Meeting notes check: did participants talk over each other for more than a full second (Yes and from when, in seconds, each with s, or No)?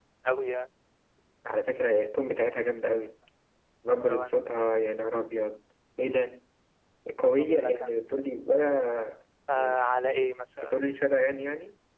No